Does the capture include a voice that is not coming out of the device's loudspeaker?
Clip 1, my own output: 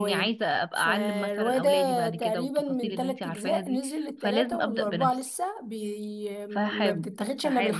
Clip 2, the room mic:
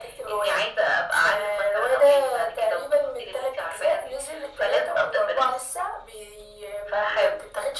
No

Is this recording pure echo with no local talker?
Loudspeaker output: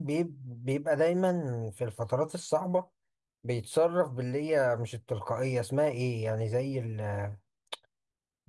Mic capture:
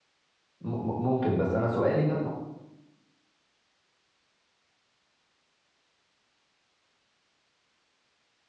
No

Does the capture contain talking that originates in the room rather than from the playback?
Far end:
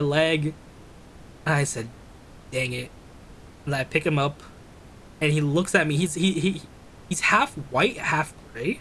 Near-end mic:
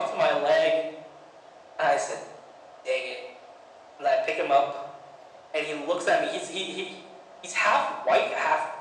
No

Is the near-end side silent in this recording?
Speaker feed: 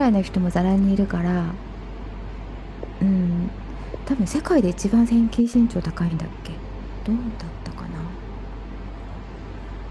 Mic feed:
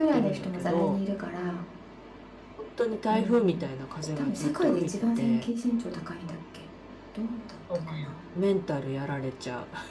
No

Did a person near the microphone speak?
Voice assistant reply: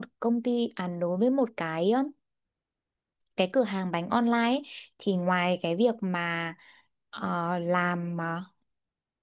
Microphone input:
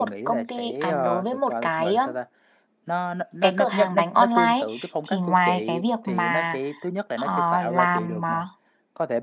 Yes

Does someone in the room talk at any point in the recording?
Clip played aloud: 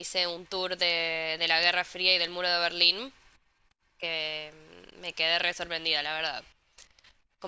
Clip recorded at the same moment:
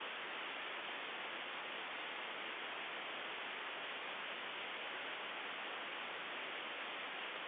No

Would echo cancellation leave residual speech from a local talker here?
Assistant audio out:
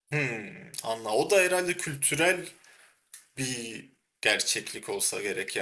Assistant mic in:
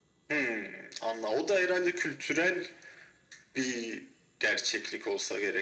No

